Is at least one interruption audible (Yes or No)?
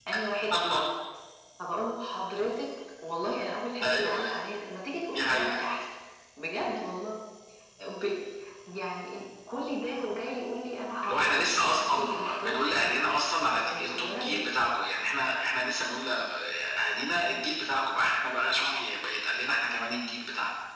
Yes